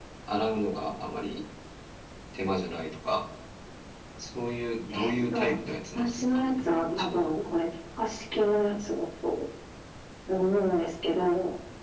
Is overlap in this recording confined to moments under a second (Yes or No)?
No